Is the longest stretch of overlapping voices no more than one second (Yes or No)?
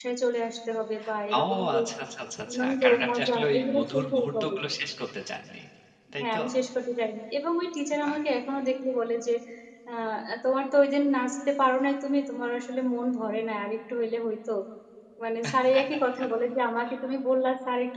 No